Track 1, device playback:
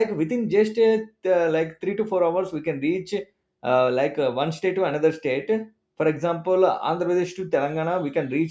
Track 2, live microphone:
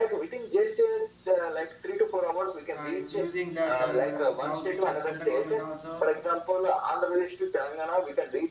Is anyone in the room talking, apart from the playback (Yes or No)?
Yes